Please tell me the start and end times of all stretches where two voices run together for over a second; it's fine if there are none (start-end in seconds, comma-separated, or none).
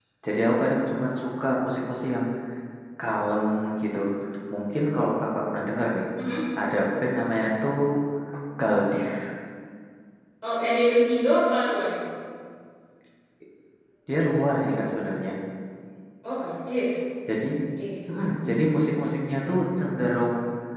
none